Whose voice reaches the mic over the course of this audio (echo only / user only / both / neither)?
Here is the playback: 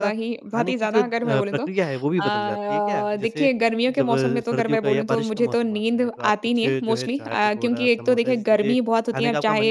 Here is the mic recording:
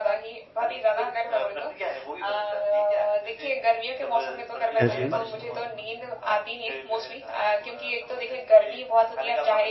both